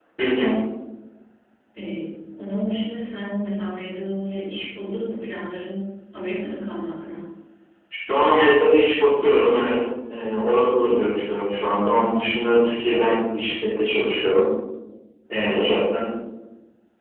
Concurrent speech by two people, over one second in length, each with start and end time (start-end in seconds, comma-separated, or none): none